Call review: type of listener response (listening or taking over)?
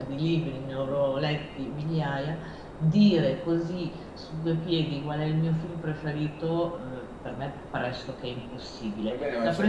taking over